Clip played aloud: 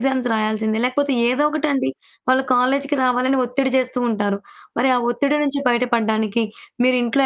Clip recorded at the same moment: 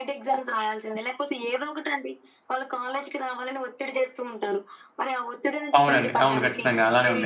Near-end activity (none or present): present